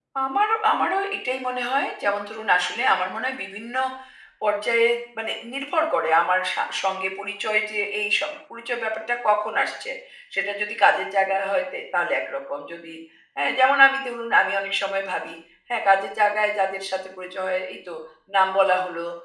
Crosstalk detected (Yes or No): No